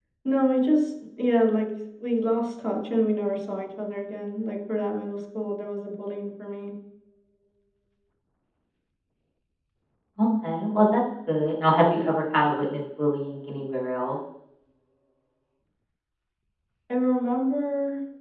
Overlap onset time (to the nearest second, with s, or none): none